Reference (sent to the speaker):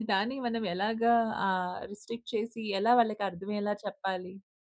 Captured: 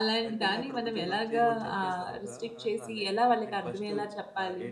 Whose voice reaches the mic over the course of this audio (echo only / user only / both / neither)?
both